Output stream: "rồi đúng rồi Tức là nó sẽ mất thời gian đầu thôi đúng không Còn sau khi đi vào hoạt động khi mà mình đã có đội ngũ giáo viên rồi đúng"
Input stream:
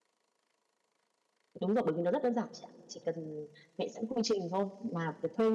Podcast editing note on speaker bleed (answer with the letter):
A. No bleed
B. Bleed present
A